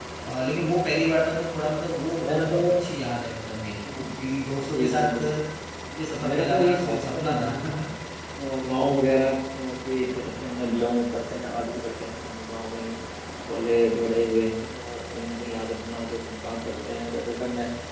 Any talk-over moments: Yes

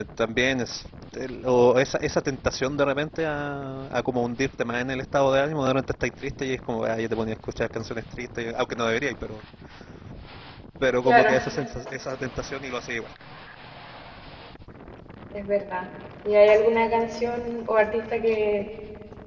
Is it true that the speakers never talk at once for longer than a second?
Yes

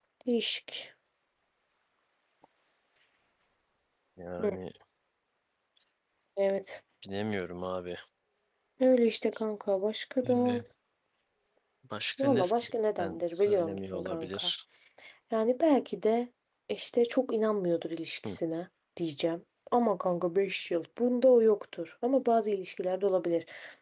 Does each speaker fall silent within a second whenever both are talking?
No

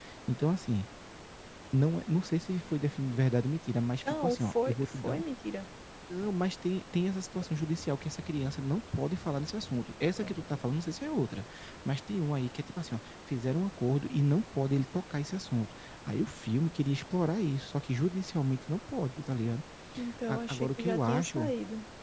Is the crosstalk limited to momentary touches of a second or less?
No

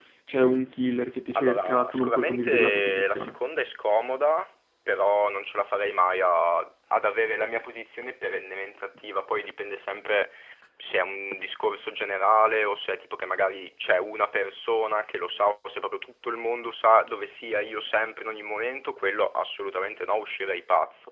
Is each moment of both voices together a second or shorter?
No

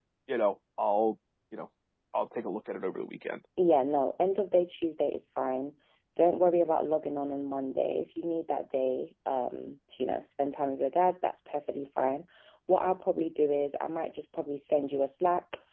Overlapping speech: No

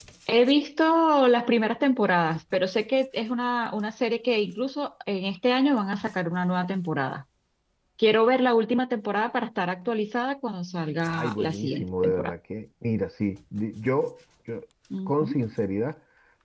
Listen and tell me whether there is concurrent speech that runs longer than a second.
Yes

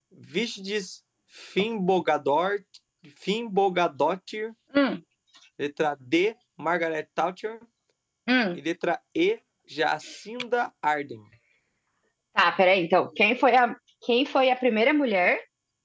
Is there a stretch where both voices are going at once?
No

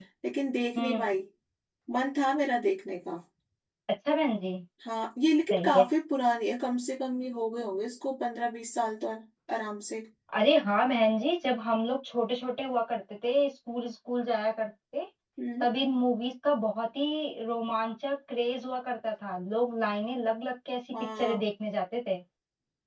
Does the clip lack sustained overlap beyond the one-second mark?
Yes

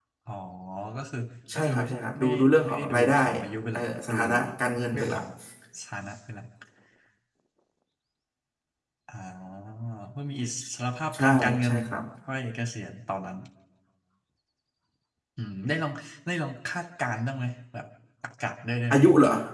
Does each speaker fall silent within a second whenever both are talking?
No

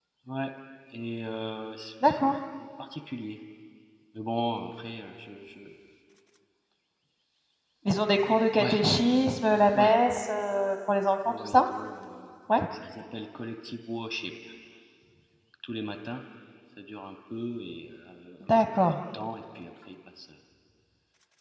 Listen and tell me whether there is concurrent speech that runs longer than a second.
No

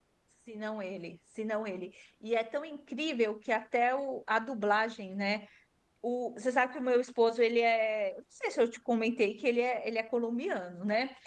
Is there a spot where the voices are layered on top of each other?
No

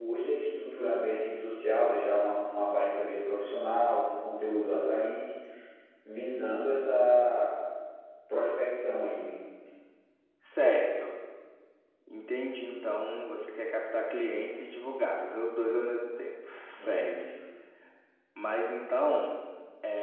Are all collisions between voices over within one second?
Yes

